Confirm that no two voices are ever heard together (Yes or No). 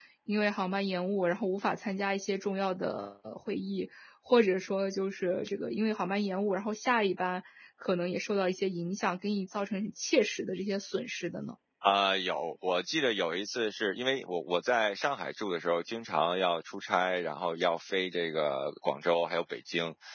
Yes